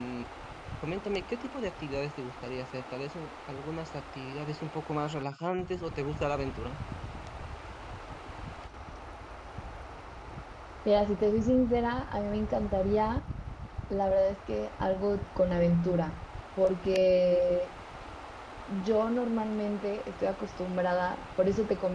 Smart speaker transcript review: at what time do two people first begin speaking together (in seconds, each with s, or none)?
none